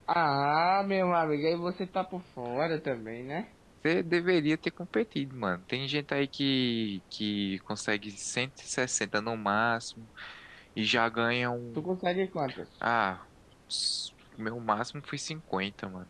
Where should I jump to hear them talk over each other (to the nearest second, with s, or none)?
none